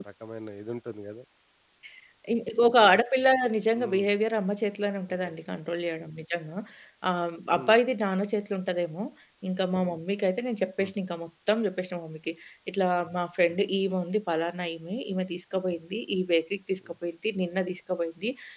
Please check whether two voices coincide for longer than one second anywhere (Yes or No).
No